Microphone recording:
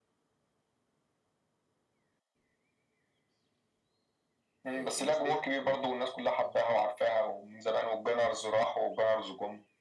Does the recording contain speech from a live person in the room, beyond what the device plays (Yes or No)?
Yes